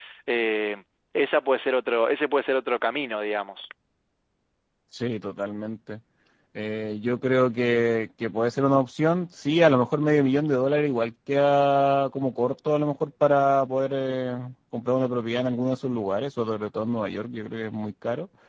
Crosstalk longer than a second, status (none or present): none